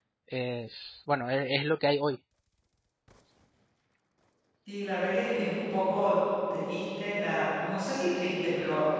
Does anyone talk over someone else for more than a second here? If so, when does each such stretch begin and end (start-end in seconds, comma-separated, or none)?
none